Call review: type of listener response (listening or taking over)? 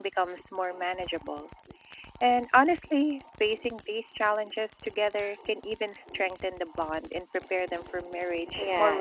taking over